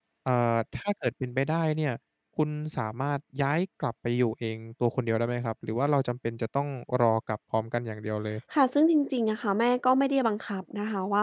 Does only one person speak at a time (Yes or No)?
Yes